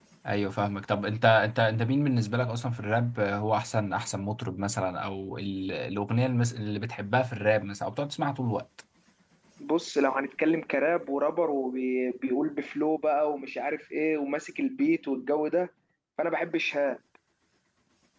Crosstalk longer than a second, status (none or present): none